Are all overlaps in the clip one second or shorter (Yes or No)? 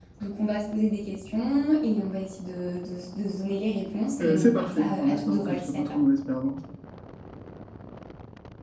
No